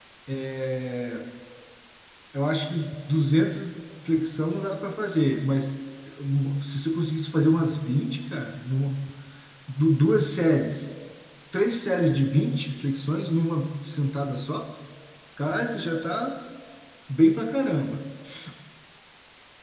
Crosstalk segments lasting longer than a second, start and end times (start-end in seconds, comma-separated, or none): none